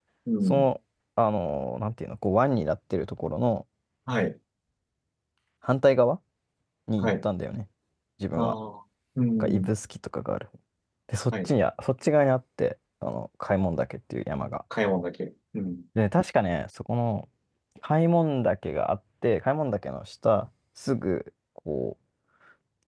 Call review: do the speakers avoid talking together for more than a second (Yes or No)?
Yes